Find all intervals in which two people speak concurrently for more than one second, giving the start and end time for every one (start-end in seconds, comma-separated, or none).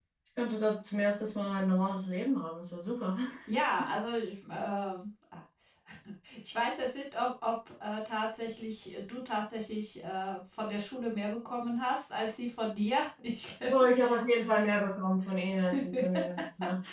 none